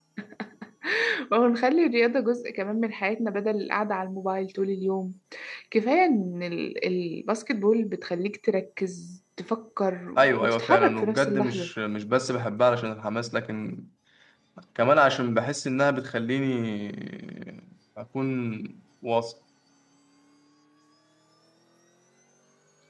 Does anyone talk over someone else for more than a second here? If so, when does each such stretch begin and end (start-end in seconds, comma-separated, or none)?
10.2-11.7